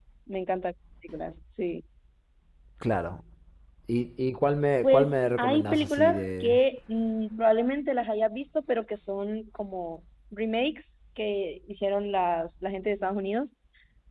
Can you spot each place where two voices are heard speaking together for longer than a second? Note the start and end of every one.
4.8-6.5

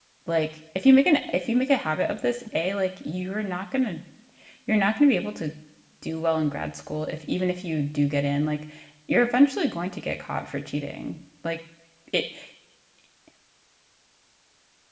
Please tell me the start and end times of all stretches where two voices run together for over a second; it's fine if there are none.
none

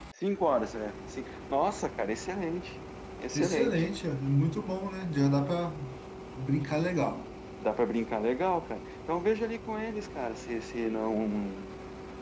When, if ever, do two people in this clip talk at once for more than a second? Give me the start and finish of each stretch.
none

